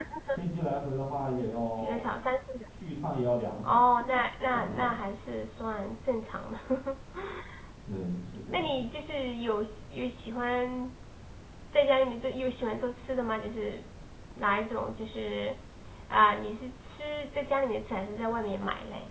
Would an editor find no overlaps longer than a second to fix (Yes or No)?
Yes